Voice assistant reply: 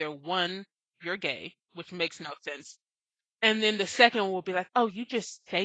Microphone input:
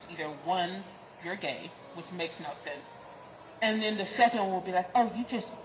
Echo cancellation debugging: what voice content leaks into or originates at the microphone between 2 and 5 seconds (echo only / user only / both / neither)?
echo only